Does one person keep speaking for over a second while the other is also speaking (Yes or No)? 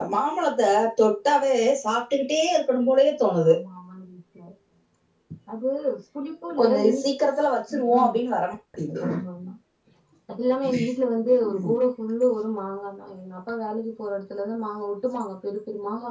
No